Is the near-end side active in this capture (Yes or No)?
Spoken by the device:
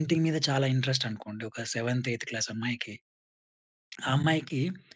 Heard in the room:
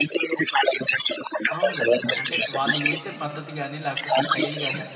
Yes